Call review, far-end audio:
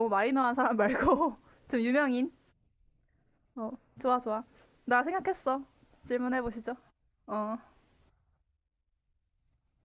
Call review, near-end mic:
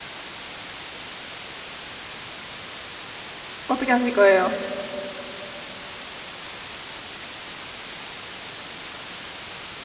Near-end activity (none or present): present